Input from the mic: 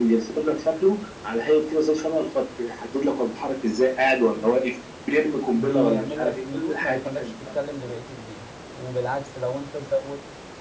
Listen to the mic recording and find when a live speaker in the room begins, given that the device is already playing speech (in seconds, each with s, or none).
5.5 s